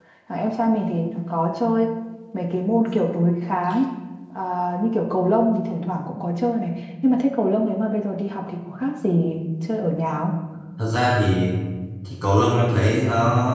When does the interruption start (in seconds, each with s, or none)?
none